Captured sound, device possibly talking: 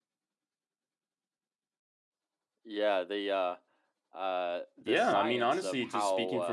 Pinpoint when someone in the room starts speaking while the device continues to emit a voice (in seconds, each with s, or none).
4.8 s